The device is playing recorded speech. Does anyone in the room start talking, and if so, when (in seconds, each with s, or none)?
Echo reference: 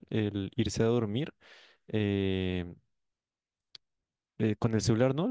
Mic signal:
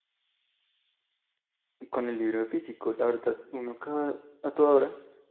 1.9 s